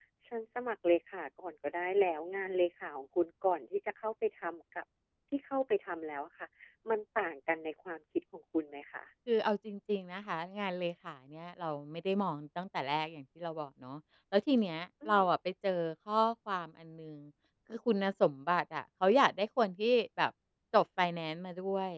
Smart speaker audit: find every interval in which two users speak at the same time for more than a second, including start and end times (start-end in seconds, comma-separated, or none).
none